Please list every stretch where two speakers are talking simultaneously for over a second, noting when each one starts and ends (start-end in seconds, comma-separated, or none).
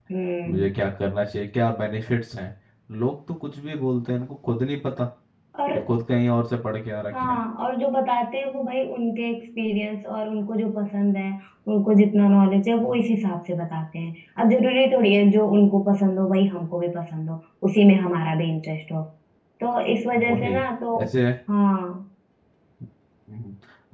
none